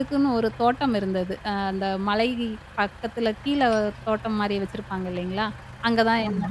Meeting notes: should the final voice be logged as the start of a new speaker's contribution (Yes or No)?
No